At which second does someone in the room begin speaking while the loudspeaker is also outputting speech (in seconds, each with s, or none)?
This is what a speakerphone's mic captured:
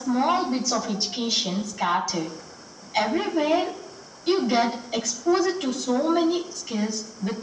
none